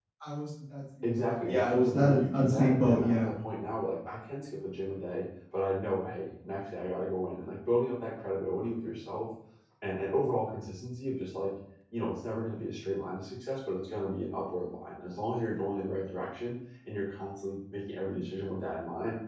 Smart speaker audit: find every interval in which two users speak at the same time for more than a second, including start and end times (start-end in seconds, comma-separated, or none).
1.0-3.3